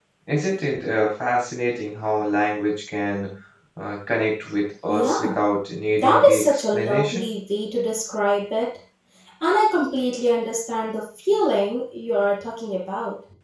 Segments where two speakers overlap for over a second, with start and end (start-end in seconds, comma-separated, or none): 6.0-7.2